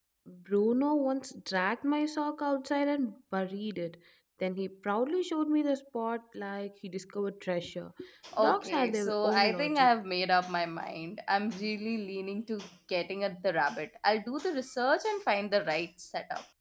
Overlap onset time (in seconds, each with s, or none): 8.4 s